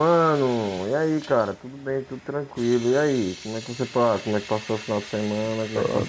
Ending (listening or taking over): taking over